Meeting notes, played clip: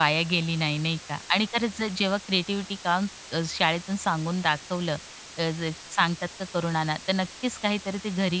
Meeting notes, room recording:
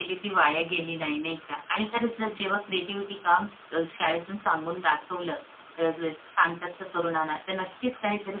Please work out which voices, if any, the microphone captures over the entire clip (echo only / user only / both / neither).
echo only